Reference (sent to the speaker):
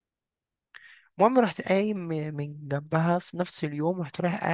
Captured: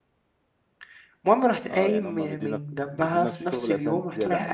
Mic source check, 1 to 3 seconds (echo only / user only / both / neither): both